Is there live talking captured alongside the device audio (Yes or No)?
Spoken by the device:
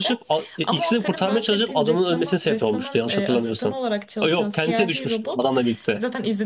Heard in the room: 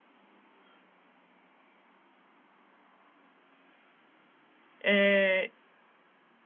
Yes